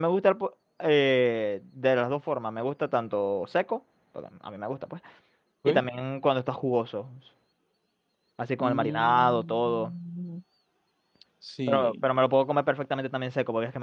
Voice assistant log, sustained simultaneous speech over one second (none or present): present